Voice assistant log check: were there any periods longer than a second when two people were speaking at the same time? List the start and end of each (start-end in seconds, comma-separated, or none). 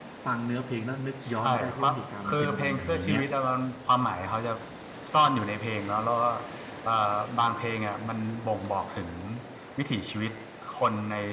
1.3-3.2